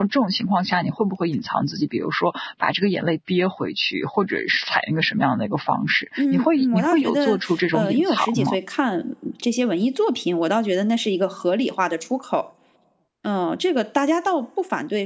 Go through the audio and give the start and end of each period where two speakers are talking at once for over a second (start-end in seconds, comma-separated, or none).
6.2-8.6